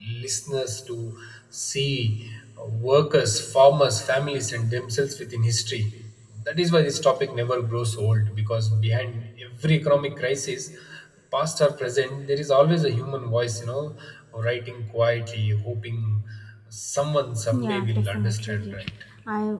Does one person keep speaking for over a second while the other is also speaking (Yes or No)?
Yes